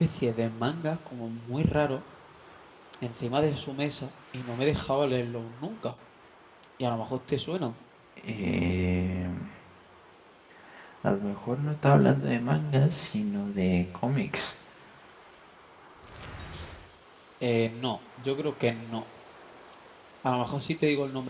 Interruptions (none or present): none